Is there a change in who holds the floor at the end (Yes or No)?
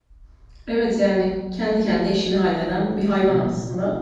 Yes